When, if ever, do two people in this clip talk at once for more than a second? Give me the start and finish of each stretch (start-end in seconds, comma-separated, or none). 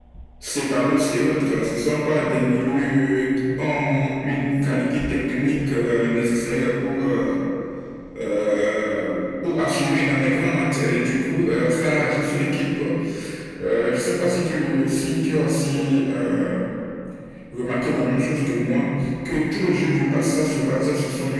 none